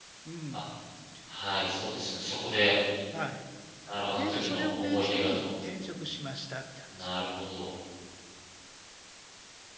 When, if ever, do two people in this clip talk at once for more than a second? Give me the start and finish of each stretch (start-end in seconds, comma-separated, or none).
4.1-5.5